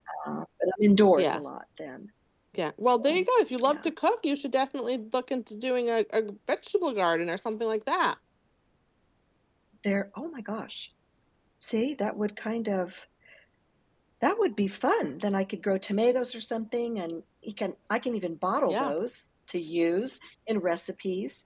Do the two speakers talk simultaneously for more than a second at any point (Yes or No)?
No